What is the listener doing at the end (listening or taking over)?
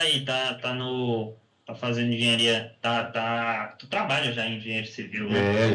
taking over